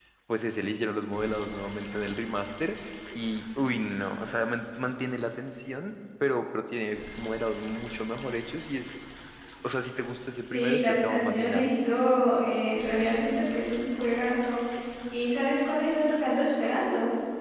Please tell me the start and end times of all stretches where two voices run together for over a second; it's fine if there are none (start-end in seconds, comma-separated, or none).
10.4-11.7